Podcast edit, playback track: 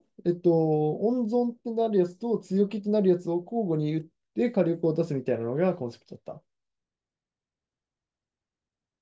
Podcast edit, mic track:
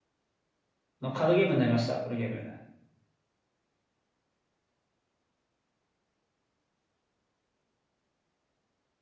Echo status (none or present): none